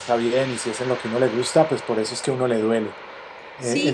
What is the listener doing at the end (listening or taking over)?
taking over